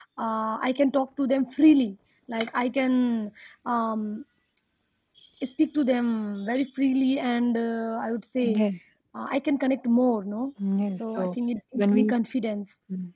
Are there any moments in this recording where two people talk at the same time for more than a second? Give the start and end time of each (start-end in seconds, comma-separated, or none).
none